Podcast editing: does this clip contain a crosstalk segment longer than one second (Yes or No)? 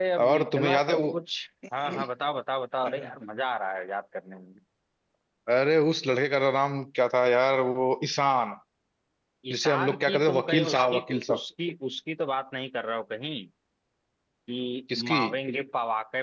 Yes